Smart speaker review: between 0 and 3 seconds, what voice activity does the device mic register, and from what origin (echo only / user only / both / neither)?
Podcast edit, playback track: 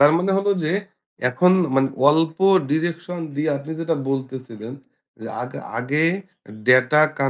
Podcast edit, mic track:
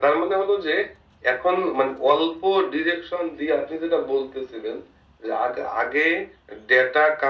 echo only